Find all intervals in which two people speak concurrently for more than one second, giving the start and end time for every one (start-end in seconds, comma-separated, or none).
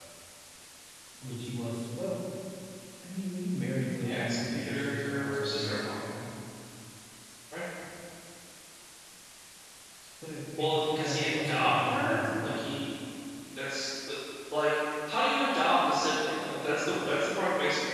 4.0-6.0, 10.6-12.6